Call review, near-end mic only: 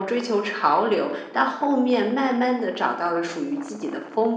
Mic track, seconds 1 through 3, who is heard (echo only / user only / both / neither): echo only